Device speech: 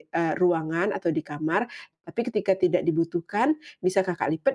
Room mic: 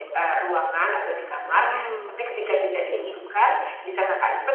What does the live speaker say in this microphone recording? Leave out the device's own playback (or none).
Wow, iya, mungkin ya ya.